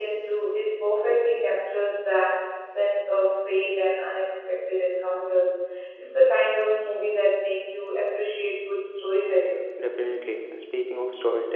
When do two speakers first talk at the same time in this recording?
none

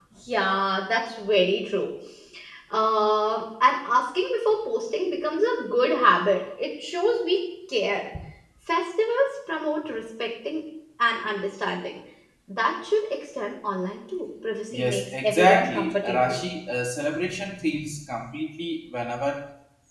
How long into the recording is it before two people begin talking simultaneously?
14.7 s

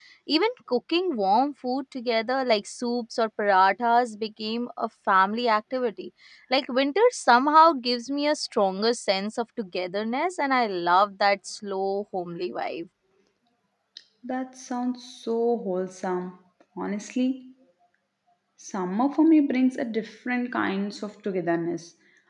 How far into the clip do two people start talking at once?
none

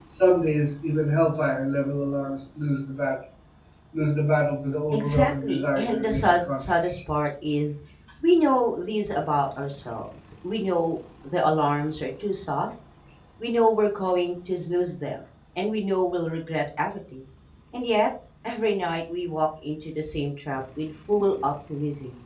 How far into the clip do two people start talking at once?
4.9 s

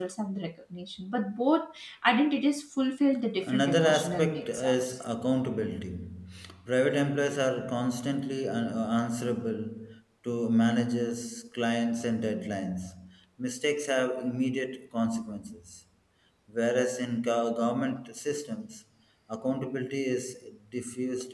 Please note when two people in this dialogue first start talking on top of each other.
3.4 s

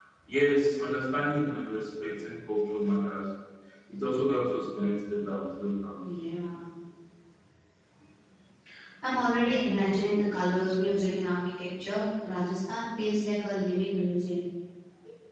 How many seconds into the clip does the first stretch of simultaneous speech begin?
none

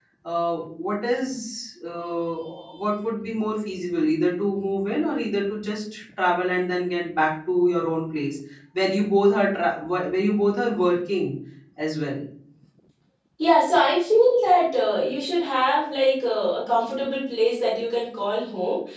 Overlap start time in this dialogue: none

